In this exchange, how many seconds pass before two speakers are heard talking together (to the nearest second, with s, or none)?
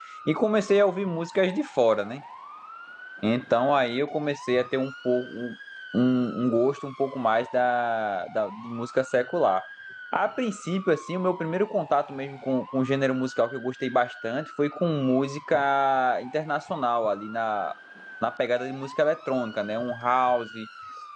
none